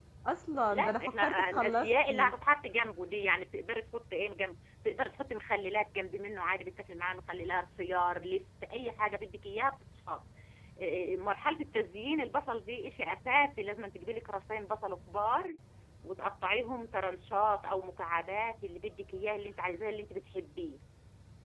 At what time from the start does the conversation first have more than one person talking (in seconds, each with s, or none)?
0.7 s